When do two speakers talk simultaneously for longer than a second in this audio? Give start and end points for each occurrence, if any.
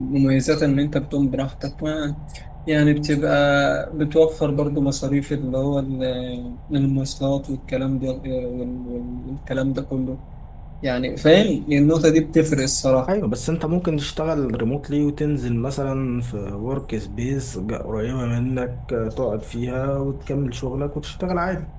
none

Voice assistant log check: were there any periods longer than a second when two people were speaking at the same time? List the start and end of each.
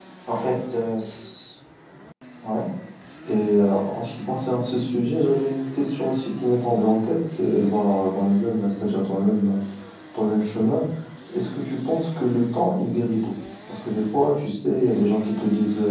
none

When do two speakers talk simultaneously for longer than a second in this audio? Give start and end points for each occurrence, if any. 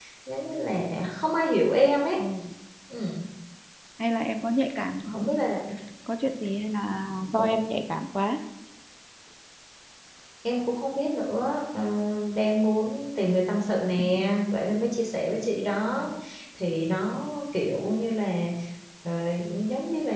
none

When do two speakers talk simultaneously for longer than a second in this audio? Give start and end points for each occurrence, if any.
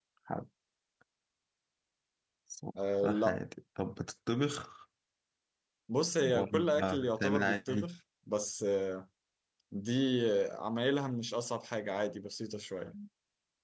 6.2-7.9

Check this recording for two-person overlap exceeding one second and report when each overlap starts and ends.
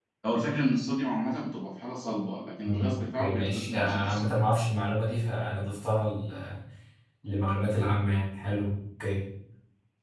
2.6-4.3

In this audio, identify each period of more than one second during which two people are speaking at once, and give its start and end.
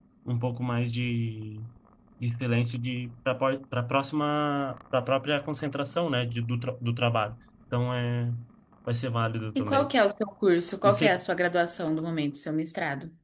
none

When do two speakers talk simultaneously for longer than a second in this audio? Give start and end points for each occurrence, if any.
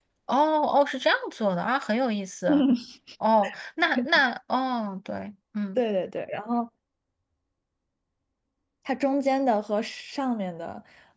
none

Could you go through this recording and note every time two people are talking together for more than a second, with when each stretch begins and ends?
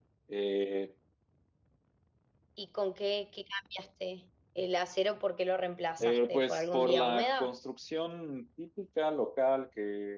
6.0-7.5

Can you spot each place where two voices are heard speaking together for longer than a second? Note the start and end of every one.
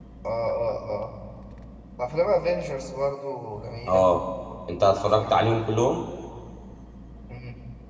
none

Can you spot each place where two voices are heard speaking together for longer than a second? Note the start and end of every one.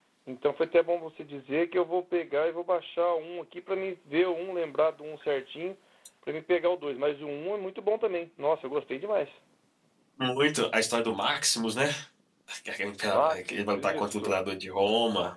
13.1-14.4

